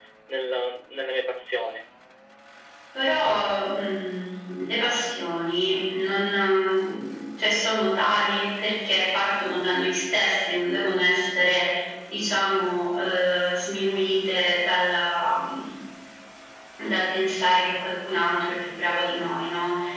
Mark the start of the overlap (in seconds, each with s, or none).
none